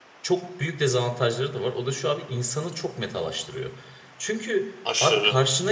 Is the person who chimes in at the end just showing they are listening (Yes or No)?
Yes